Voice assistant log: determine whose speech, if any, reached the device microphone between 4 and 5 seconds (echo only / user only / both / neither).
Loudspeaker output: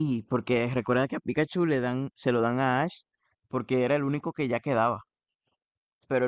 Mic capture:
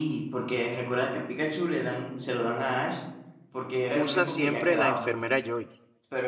both